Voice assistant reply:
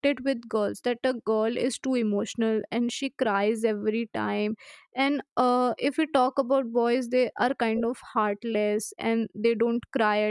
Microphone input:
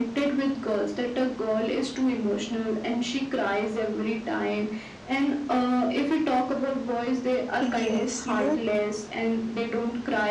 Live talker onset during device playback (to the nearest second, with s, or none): 8 s